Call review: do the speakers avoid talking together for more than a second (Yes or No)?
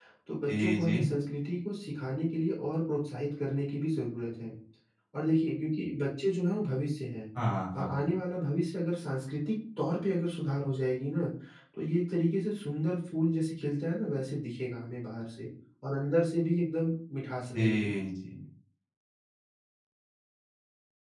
Yes